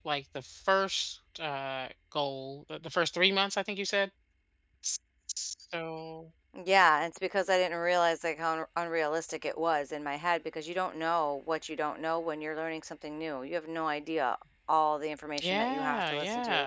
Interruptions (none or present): present